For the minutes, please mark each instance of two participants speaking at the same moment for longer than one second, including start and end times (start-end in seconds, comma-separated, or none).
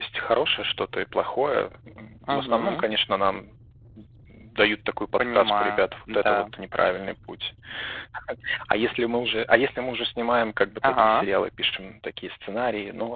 5.2-6.4